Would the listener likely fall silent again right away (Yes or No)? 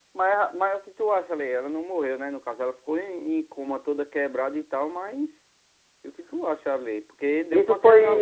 No